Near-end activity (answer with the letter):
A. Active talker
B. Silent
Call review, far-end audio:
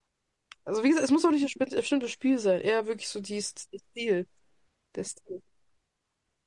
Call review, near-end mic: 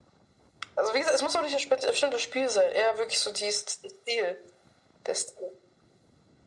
B